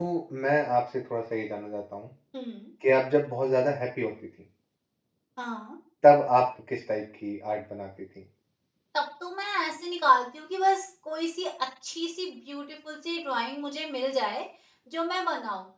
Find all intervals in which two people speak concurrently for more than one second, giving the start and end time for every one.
none

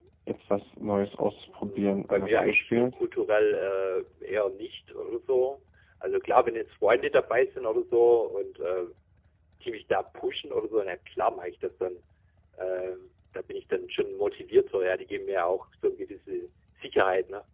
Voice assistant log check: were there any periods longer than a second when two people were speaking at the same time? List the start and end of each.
1.6-2.9

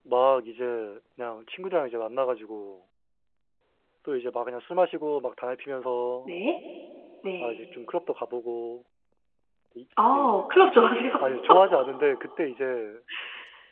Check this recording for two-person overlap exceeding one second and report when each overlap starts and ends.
none

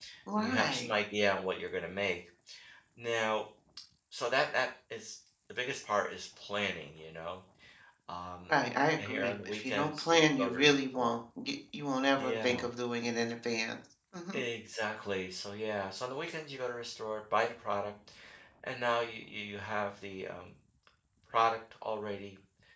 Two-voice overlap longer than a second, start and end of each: 9.0-11.1

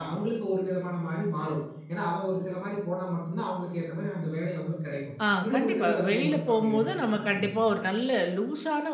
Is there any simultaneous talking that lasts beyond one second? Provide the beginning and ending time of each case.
5.4-7.6

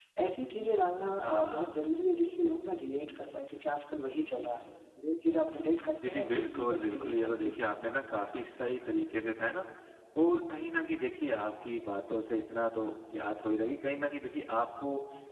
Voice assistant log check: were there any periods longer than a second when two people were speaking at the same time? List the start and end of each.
6.1-7.5

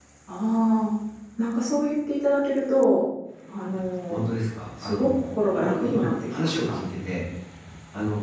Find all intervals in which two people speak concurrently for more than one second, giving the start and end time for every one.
5.6-6.8

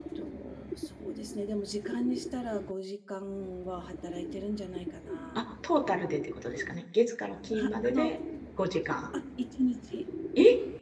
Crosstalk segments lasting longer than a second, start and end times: none

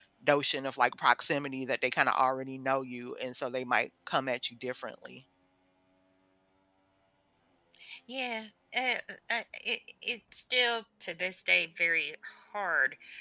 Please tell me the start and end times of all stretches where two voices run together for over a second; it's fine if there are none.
none

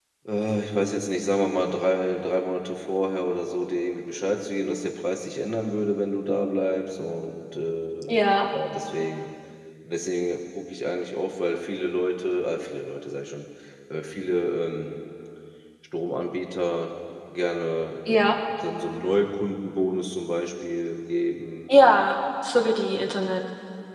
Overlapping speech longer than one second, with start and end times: none

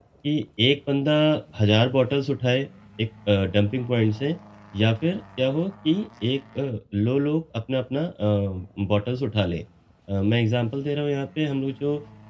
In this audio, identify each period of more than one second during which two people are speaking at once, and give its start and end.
none

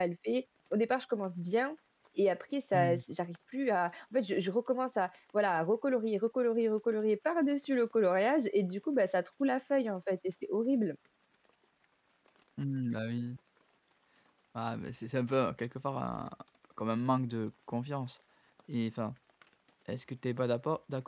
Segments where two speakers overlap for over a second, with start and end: none

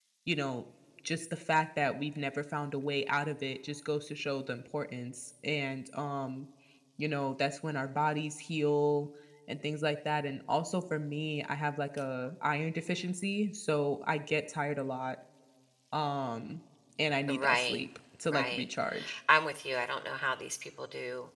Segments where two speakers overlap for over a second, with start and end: none

